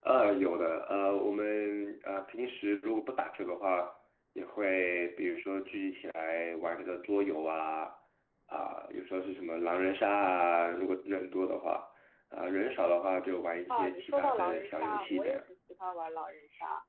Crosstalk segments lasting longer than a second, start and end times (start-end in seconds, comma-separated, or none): 13.7-15.4